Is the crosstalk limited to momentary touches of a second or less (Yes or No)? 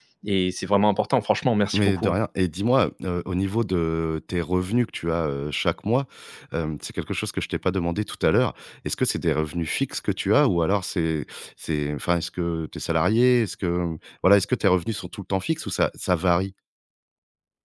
Yes